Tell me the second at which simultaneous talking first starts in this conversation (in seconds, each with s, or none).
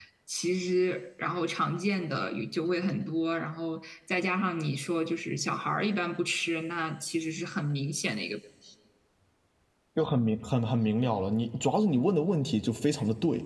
none